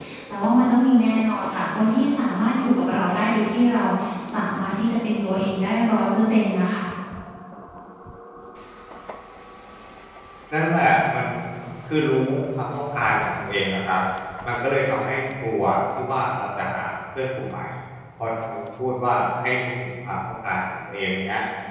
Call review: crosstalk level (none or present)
none